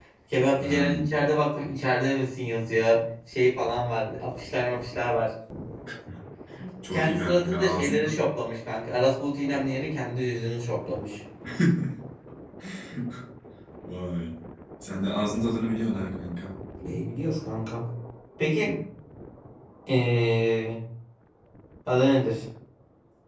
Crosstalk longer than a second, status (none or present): present